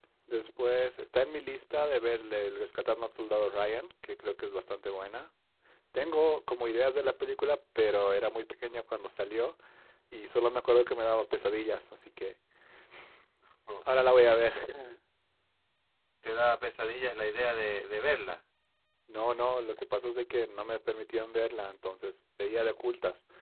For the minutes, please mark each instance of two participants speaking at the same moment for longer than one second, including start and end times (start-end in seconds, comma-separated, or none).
none